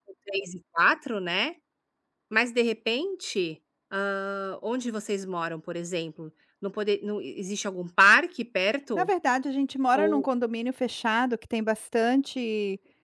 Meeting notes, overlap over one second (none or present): none